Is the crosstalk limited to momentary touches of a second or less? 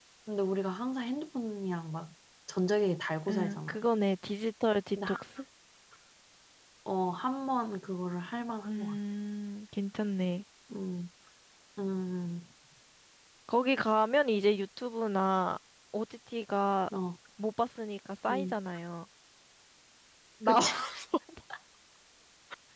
Yes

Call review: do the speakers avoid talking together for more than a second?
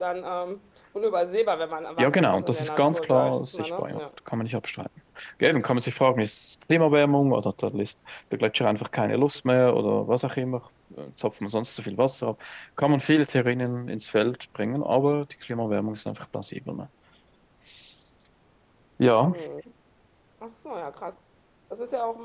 No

